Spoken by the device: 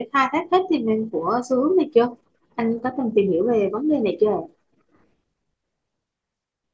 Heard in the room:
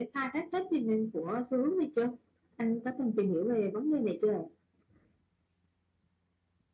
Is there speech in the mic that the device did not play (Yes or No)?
No